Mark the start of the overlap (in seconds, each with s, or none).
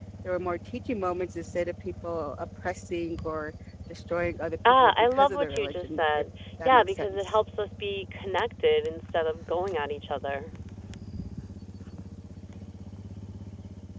4.6 s